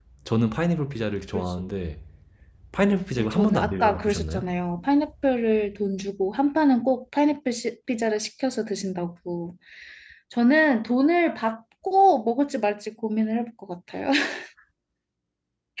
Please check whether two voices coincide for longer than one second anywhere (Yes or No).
Yes